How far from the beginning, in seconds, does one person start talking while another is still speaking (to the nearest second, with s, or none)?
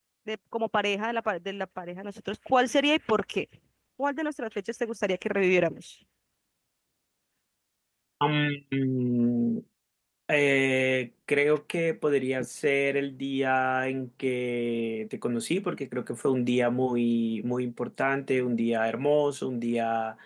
none